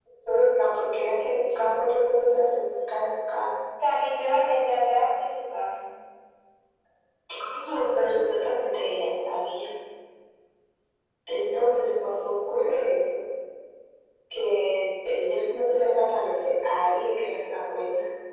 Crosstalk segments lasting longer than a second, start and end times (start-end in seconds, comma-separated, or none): none